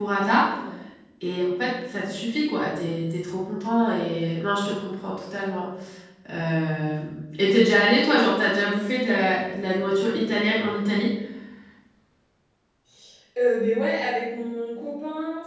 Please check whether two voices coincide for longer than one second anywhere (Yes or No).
No